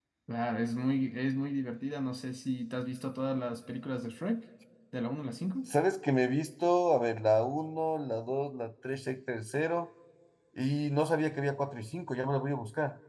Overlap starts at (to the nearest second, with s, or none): none